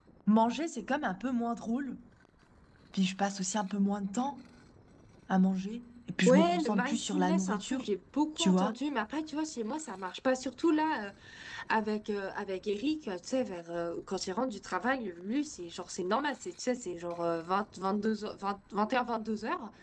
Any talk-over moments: Yes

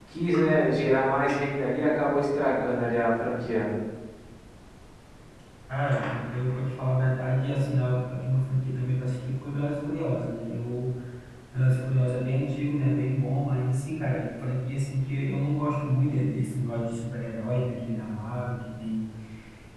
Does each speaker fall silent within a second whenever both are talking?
Yes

